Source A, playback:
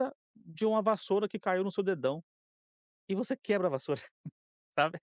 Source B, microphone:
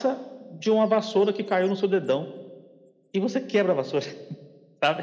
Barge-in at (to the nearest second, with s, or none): none